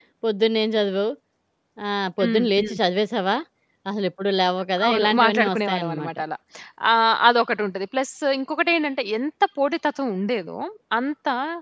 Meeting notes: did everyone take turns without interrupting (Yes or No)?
No